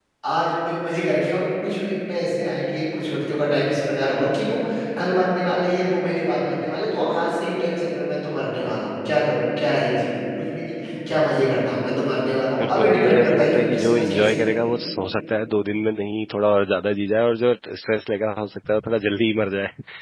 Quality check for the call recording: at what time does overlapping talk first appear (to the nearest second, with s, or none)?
13 s